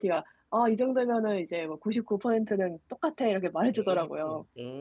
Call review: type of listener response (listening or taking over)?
taking over